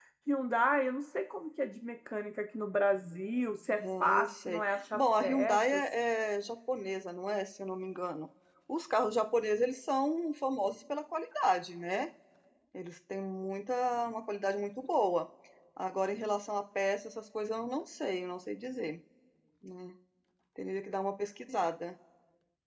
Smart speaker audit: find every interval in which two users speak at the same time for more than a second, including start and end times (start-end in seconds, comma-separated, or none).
4.0-5.8